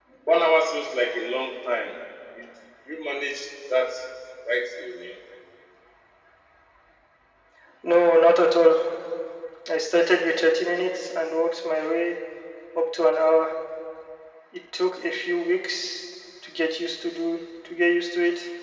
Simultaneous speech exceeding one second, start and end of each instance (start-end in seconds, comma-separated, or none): none